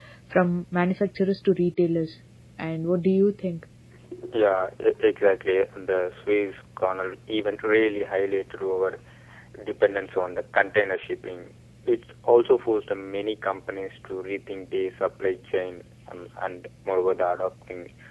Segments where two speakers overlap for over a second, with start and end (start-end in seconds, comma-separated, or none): none